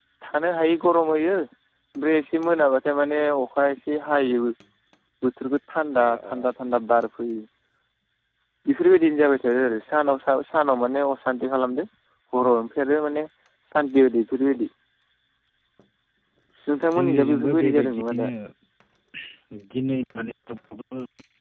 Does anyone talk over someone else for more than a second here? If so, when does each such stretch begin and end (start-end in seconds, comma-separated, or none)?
16.9-18.3